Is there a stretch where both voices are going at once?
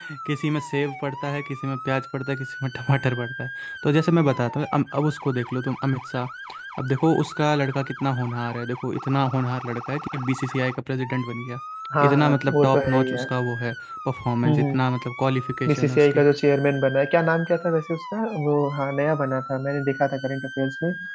Yes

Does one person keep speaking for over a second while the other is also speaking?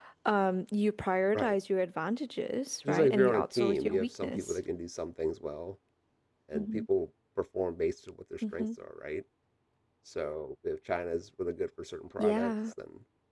Yes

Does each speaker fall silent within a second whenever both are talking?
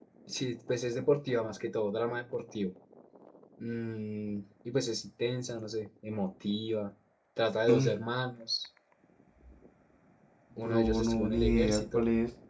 No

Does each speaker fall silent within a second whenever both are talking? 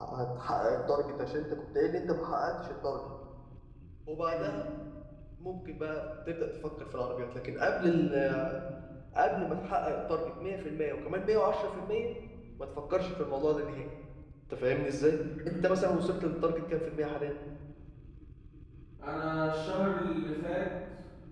Yes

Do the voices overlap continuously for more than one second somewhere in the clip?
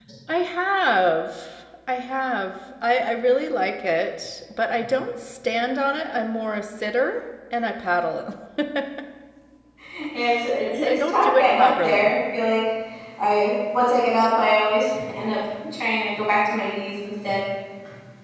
Yes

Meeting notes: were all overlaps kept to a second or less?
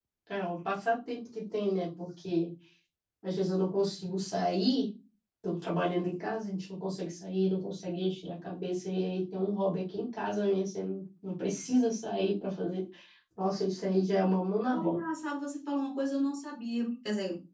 Yes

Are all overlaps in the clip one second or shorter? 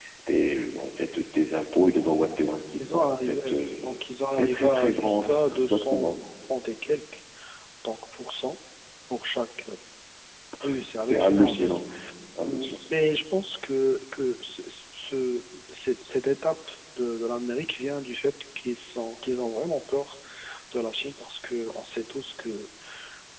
No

